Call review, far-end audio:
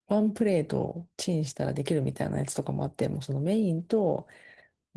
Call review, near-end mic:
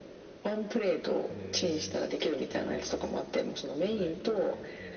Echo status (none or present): present